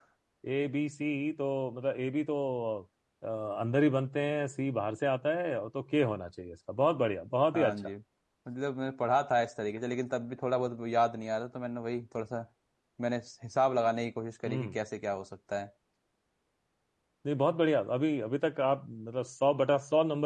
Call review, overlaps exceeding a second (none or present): none